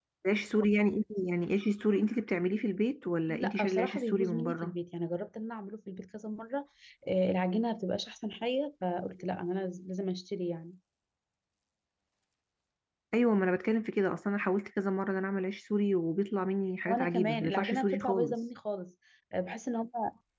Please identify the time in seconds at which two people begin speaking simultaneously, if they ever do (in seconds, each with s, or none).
3.3 s